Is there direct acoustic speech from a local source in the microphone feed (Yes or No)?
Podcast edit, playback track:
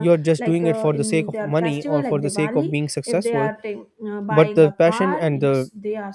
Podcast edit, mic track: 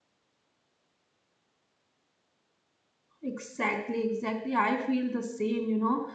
Yes